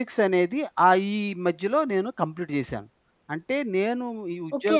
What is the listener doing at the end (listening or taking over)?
taking over